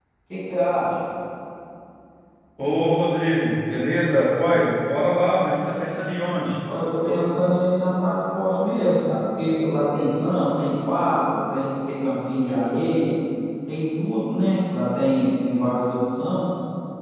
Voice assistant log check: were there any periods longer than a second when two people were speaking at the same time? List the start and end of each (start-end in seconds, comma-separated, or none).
none